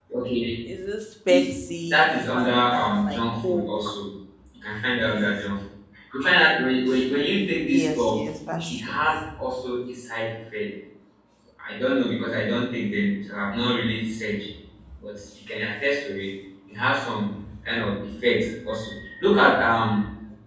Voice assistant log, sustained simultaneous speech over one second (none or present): present